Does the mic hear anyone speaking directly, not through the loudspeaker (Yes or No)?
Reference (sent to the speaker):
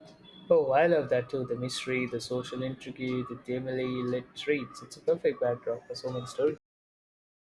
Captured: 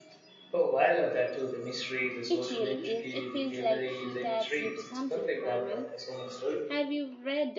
Yes